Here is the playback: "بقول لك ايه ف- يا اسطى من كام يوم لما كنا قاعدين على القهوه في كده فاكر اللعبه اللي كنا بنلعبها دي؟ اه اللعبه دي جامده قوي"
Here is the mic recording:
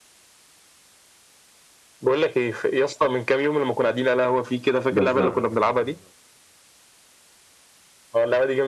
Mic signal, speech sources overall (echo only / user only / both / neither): both